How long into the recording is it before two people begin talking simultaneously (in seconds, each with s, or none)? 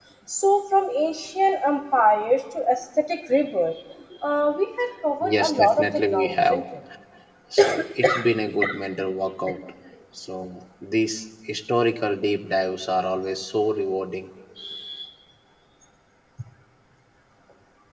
5.2 s